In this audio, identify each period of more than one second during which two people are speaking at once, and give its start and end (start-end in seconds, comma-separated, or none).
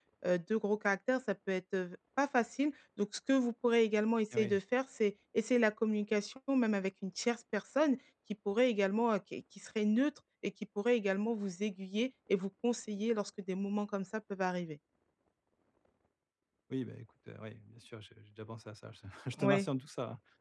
none